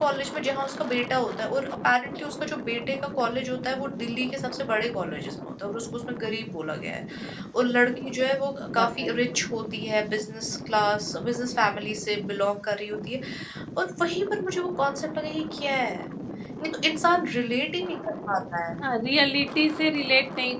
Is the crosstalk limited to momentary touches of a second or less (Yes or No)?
Yes